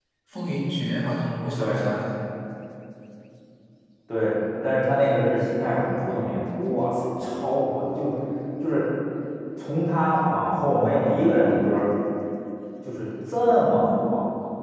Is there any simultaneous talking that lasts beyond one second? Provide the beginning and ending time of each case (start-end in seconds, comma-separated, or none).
none